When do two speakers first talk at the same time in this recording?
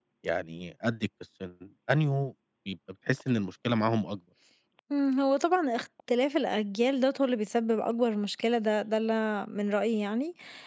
none

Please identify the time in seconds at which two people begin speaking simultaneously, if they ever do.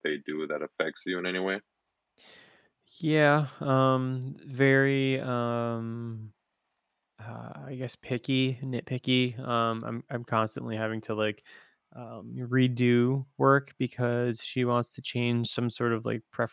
none

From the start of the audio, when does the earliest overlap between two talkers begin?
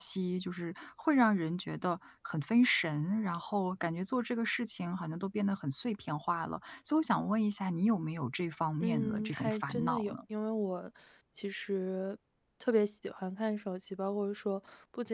8.8 s

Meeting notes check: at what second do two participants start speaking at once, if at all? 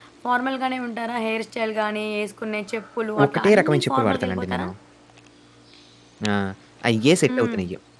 3.3 s

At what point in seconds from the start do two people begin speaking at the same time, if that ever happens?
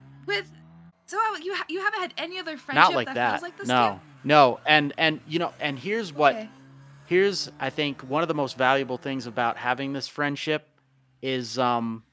2.7 s

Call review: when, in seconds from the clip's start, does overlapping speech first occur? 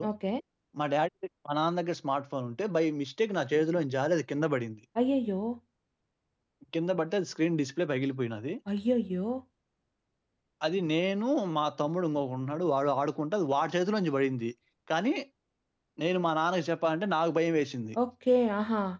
none

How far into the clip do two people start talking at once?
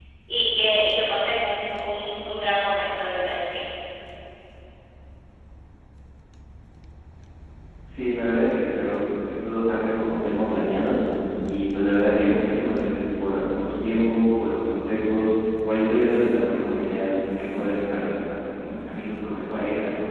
none

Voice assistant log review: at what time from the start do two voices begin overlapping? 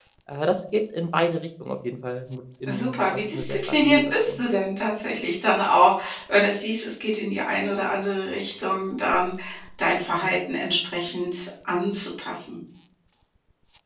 2.7 s

